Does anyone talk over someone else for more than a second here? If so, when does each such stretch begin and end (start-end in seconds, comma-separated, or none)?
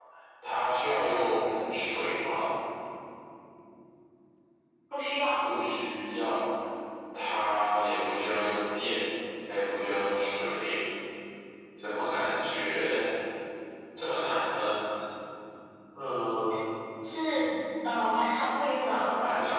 none